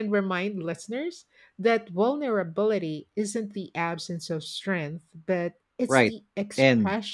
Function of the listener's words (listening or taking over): taking over